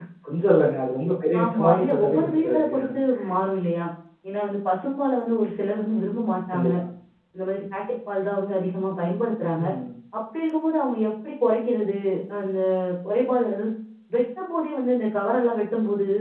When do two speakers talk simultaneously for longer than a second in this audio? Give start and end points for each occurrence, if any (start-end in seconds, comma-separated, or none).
1.4-2.7